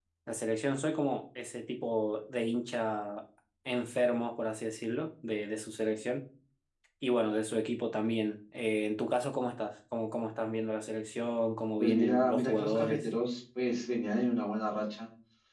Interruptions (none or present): present